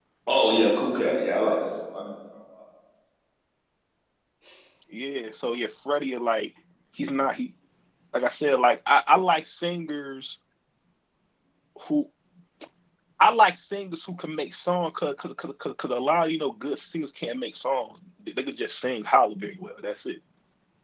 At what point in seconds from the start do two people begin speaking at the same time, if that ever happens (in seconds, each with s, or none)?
none